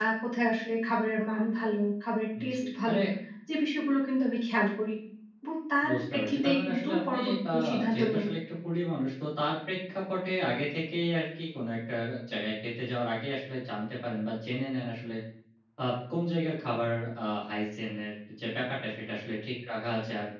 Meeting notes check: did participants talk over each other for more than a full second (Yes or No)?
Yes